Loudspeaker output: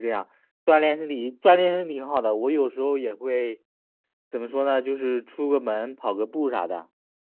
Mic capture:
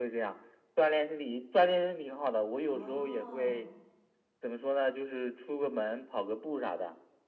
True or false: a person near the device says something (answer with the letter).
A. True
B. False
A